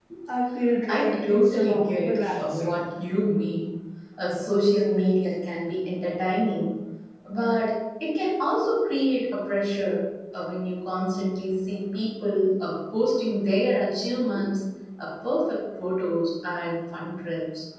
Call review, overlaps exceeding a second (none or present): present